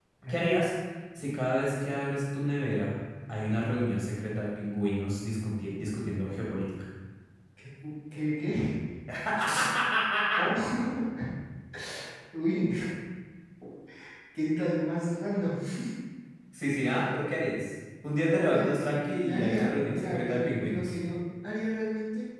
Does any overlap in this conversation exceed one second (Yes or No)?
Yes